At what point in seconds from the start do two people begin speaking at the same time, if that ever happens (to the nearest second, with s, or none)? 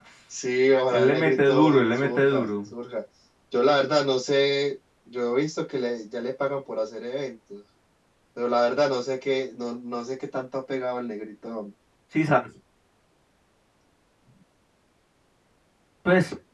1 s